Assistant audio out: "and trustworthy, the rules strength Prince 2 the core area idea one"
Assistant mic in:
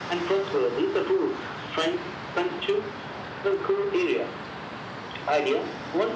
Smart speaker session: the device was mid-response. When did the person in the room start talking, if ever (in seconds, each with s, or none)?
none